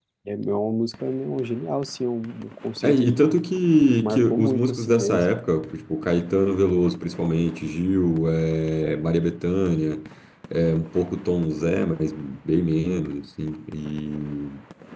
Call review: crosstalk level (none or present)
present